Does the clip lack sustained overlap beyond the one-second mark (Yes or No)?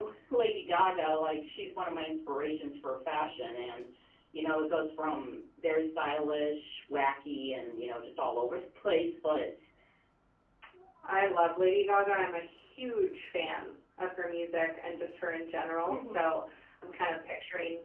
Yes